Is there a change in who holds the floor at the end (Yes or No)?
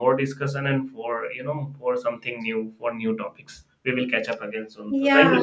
Yes